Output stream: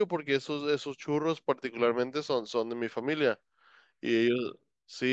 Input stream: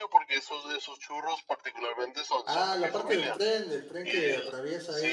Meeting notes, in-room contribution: present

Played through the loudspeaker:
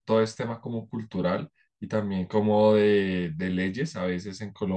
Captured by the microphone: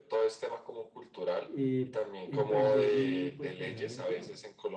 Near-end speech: present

